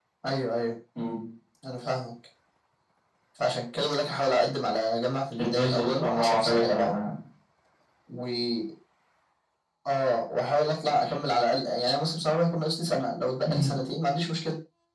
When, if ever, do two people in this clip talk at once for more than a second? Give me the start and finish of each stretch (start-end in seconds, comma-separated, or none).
5.4-6.9